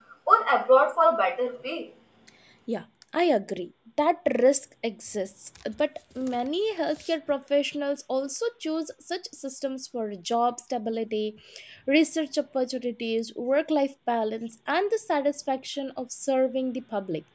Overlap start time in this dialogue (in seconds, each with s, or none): none